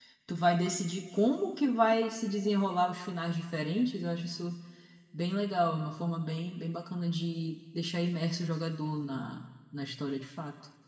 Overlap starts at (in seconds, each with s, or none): none